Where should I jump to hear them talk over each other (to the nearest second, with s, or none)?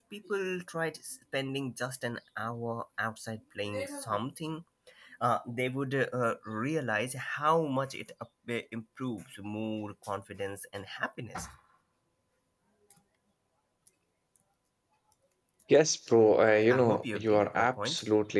17 s